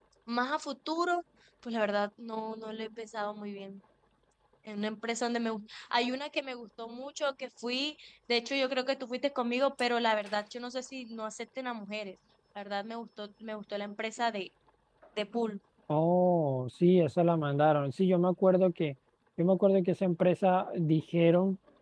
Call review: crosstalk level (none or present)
none